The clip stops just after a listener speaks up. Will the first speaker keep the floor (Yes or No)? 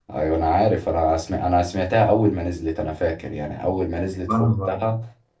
Yes